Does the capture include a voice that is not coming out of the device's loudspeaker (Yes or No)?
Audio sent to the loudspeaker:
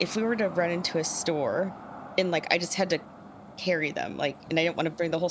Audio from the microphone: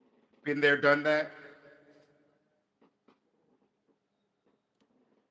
Yes